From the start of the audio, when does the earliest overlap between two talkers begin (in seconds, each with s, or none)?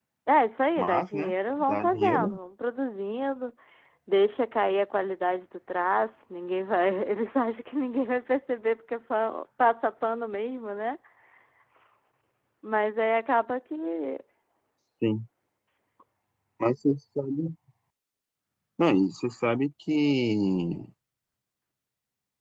0.8 s